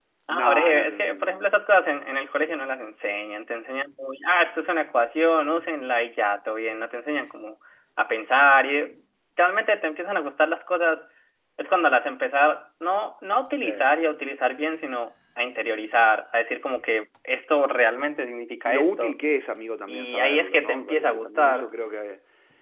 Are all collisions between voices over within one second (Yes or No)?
No